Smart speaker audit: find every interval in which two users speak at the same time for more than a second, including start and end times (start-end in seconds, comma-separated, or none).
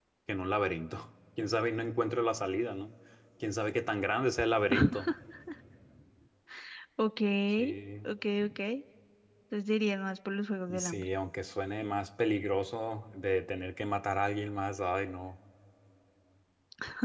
none